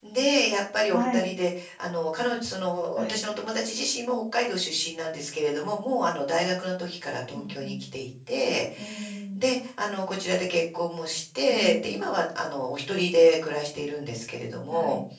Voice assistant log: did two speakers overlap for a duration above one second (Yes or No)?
No